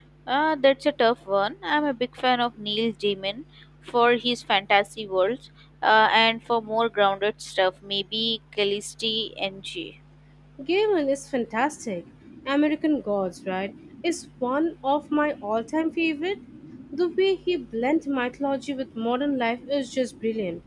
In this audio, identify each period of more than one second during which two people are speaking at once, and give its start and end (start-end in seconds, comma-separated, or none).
none